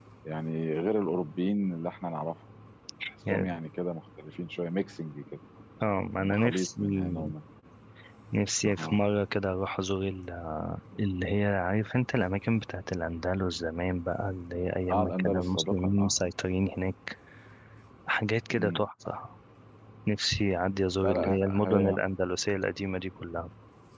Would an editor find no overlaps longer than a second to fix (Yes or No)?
No